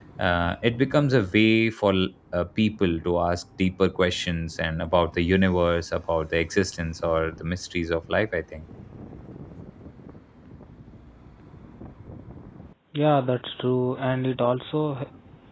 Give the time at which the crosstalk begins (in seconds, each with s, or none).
none